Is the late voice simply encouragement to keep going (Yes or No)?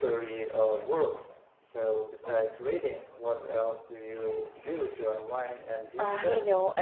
No